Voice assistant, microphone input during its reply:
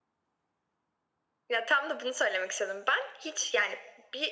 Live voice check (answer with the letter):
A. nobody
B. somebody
A